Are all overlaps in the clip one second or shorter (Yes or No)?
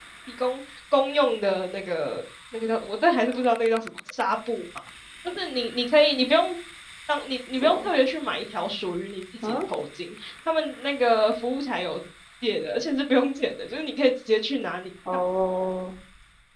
Yes